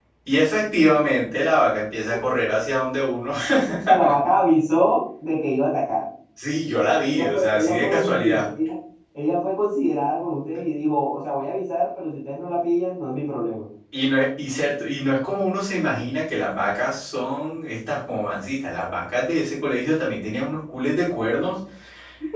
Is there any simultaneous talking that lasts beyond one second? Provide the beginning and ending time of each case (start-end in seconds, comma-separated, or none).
7.1-8.4